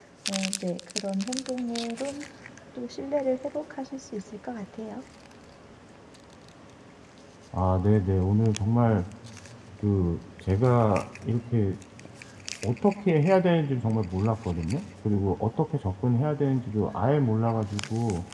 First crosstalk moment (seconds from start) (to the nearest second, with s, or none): none